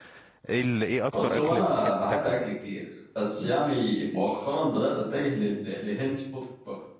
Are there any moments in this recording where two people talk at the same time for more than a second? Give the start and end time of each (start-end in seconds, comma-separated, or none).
1.1-2.3